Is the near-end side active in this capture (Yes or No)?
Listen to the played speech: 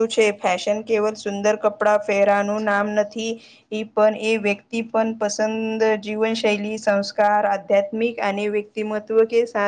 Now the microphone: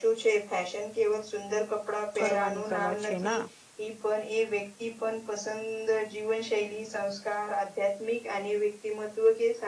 Yes